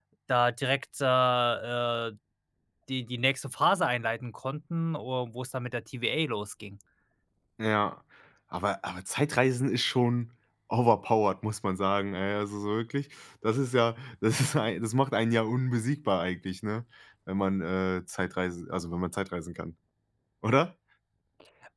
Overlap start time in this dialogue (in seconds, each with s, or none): none